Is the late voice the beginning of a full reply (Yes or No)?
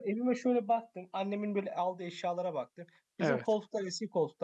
No